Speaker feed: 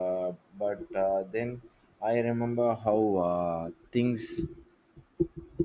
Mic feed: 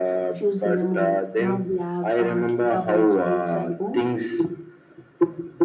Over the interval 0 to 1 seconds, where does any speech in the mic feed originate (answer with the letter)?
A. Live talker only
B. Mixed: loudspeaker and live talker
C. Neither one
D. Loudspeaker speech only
B